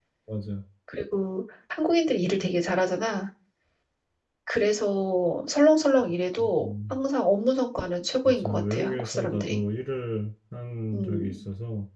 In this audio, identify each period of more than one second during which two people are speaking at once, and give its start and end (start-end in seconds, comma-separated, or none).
8.2-9.6